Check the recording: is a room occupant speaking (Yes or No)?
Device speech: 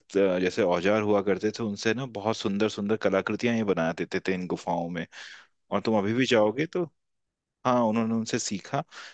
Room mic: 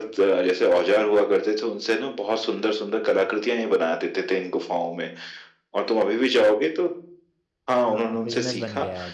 Yes